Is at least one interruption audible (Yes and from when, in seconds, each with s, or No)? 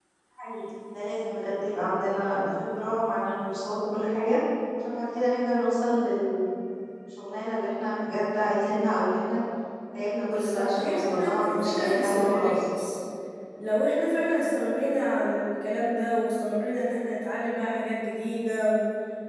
Yes, from 10.2 s